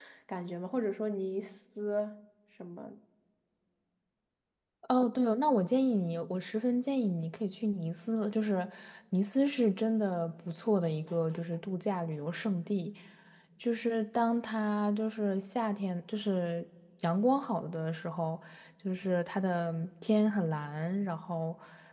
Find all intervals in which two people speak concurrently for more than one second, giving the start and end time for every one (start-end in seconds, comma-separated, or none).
none